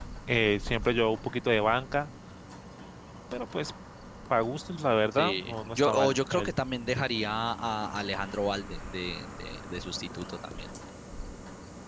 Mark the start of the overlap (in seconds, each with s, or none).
5.1 s